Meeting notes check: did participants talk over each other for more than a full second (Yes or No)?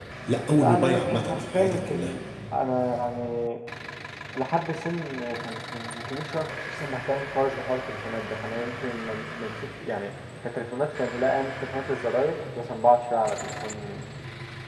Yes